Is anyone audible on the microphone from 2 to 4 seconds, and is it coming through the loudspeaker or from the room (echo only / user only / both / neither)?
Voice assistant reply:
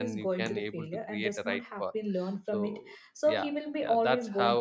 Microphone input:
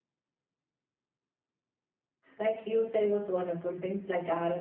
user only